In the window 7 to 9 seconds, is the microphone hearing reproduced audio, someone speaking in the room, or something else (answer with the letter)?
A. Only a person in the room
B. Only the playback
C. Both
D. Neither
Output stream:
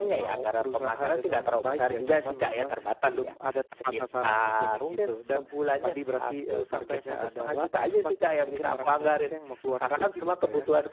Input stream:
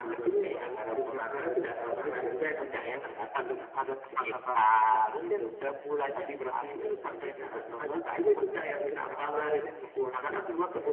B